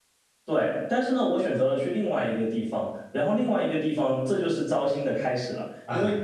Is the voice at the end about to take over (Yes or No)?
No